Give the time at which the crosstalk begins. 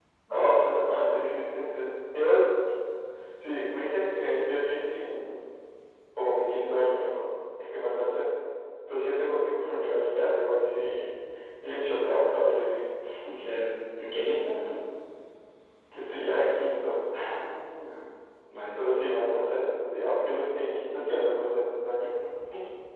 none

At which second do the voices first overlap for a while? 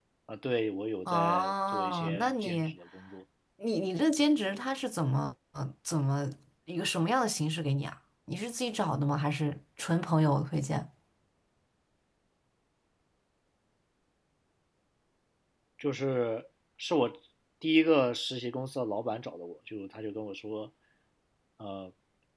1 s

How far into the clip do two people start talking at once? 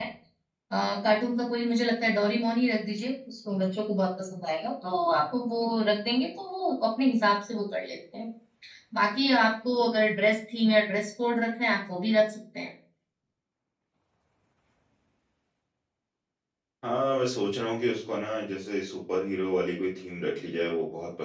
none

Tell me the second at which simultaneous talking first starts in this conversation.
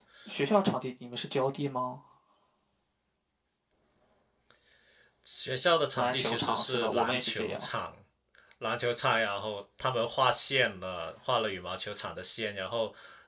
6 s

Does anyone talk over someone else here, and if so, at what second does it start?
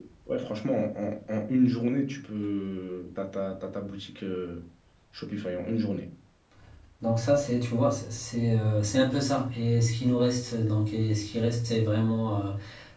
none

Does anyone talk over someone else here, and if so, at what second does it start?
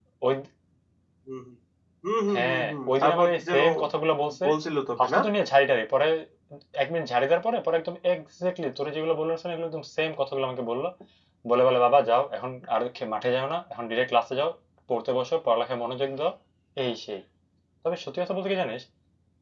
2 s

